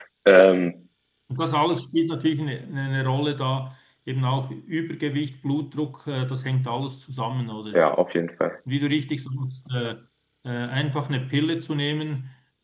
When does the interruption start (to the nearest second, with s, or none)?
none